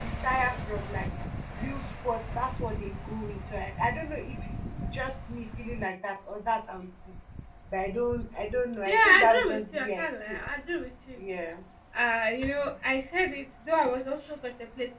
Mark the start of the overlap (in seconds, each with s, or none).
8.8 s